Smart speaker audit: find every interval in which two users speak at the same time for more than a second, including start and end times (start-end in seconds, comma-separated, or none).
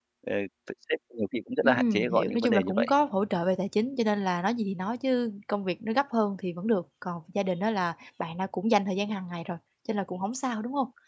1.6-2.9